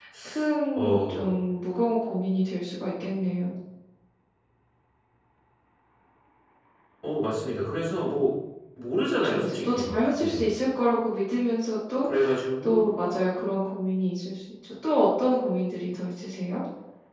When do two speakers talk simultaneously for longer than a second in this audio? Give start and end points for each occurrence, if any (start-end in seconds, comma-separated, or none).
9.2-10.6